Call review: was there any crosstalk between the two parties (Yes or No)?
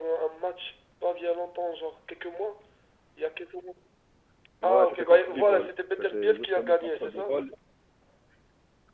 Yes